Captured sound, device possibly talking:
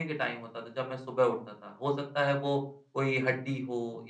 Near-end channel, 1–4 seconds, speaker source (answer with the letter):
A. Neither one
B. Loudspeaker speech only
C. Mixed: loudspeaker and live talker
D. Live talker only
B